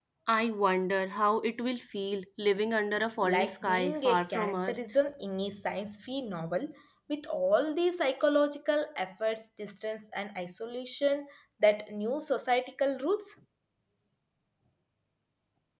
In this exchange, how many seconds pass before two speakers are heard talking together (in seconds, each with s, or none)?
3.2 s